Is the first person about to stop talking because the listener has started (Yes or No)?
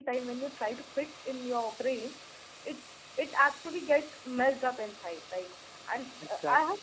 No